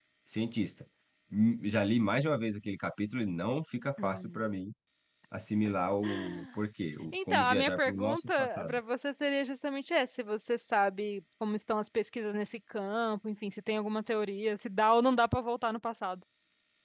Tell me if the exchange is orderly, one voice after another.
No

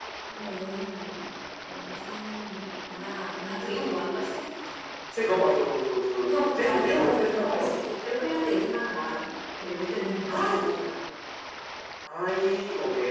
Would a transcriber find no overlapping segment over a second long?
No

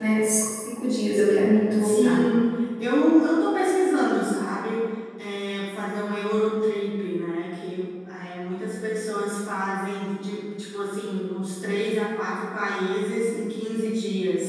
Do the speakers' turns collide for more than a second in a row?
No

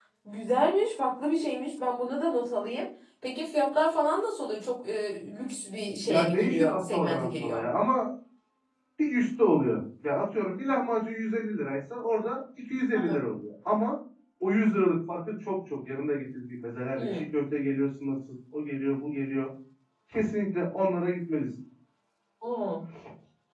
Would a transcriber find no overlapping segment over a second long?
No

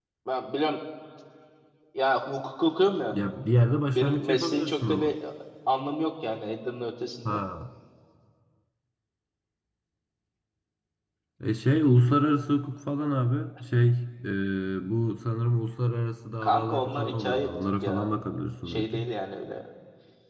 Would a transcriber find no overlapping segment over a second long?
No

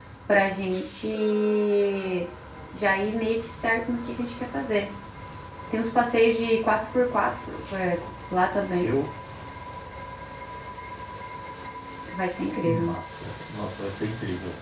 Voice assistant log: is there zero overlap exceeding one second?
Yes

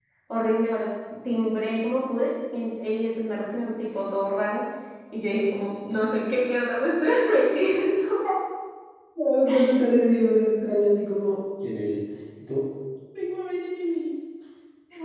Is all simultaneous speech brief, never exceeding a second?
Yes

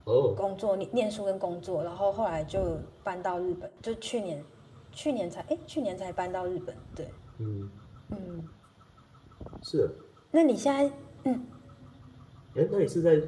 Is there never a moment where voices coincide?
Yes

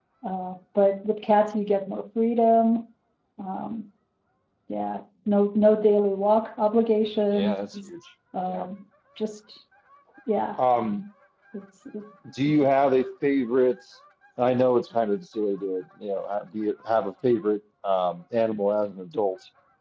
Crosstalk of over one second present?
No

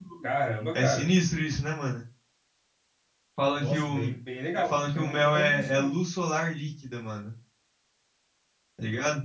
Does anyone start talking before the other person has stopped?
Yes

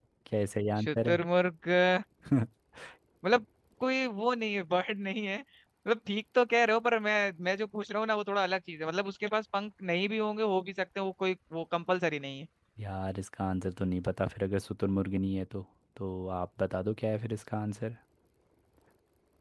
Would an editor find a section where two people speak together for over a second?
No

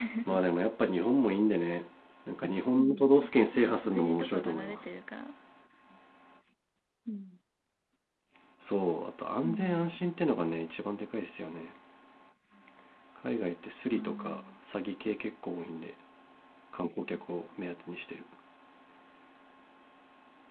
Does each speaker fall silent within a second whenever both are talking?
No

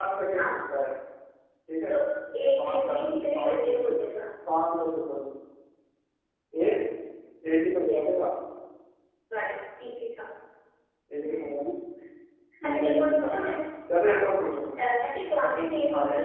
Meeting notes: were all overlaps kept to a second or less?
No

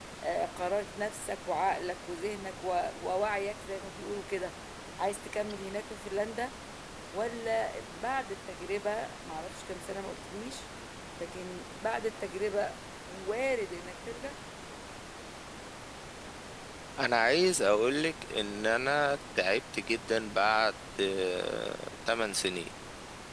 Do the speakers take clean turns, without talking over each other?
Yes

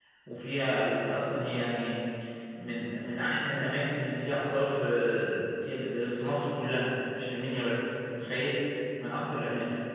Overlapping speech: No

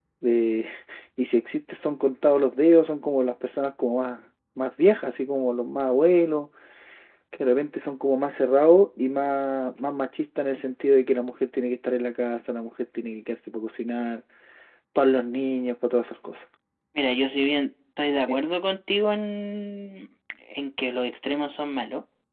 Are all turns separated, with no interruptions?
Yes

